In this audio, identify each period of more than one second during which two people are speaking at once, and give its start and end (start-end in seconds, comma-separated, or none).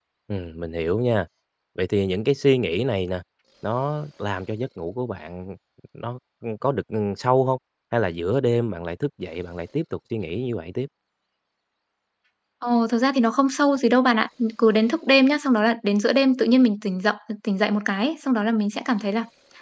none